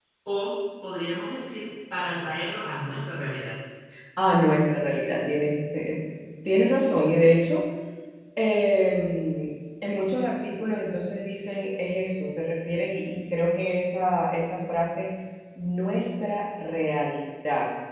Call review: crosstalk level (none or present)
none